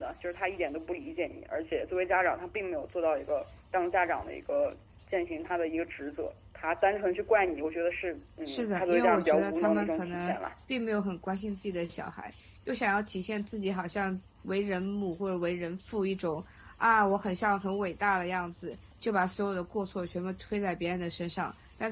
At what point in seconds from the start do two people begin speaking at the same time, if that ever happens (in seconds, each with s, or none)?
8.5 s